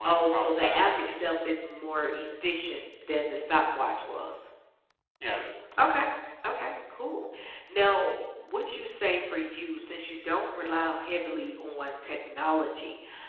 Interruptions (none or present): present